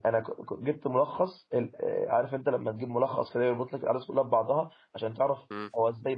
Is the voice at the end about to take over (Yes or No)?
No